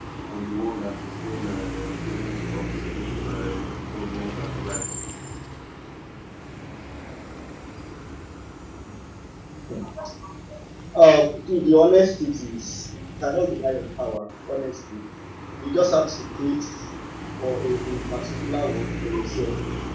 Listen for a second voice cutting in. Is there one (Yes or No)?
No